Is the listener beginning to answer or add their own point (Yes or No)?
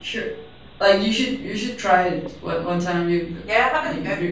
Yes